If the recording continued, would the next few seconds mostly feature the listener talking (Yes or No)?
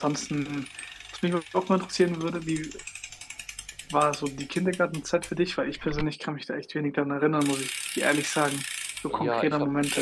Yes